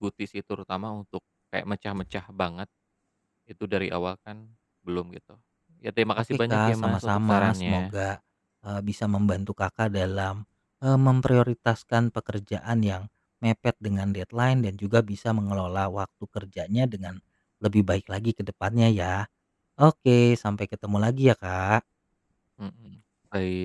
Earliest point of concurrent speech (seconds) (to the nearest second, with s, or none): 6 s